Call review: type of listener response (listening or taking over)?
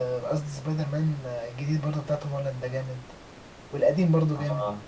listening